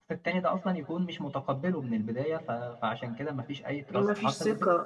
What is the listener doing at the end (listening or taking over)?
taking over